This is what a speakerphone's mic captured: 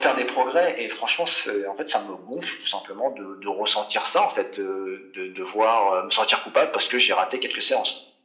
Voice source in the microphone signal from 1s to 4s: echo only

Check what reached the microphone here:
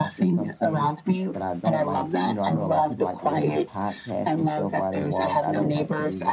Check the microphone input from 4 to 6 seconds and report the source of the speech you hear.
both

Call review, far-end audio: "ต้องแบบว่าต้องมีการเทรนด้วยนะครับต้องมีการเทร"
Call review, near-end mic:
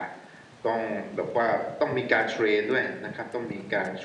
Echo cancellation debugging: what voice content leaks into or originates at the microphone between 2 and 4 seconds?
echo only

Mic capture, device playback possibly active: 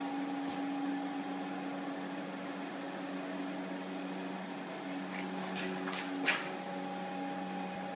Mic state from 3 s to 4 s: neither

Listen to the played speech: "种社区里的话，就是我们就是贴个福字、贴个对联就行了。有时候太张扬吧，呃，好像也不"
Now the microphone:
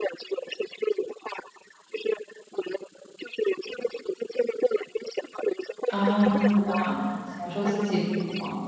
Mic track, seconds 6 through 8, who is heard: both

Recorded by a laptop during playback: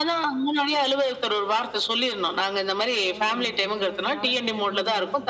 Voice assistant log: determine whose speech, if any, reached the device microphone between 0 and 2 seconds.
echo only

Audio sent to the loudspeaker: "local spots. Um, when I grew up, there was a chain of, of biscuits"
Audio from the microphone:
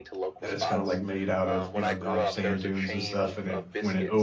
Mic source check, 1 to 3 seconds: both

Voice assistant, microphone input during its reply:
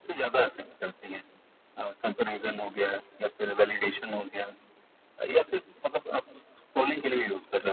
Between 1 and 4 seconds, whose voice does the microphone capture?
echo only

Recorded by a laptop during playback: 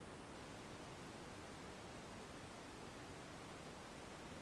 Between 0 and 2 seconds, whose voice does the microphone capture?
neither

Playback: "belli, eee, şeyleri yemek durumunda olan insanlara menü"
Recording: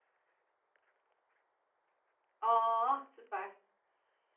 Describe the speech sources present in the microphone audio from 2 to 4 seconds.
user only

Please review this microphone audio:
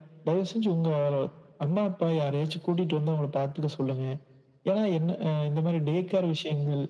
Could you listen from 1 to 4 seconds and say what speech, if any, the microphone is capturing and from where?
echo only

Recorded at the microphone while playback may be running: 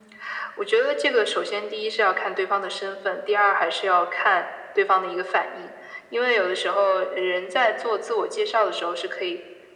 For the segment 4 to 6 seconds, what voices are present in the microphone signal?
echo only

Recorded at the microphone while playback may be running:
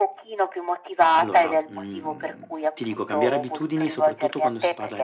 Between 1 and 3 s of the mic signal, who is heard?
both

